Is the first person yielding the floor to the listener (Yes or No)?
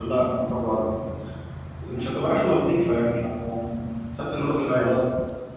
Yes